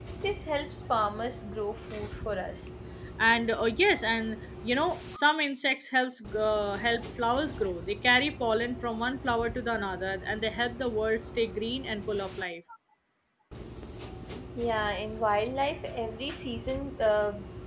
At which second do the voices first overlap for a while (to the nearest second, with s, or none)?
none